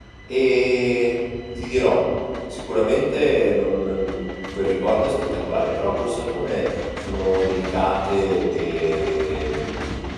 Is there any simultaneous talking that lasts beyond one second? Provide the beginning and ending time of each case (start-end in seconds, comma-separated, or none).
none